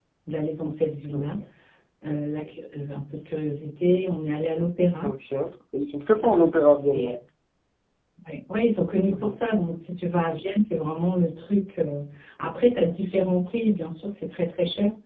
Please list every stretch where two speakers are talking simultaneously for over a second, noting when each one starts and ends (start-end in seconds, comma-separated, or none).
none